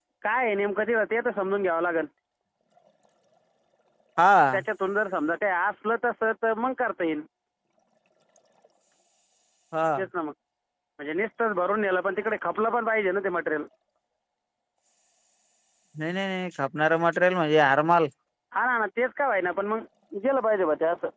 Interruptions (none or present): none